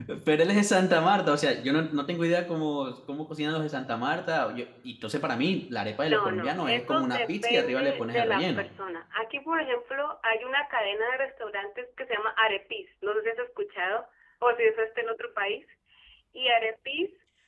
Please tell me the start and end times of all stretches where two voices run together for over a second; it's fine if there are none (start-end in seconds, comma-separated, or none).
6.0-8.6